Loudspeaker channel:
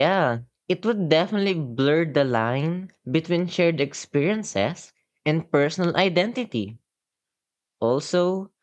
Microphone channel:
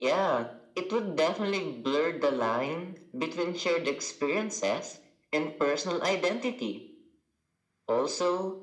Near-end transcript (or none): none